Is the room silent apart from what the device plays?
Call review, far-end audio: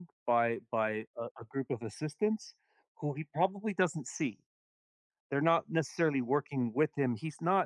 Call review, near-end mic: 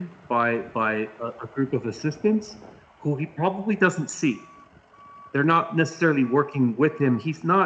Yes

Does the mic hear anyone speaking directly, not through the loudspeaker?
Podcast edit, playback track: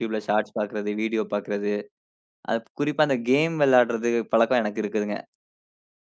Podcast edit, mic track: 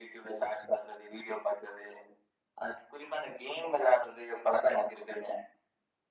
No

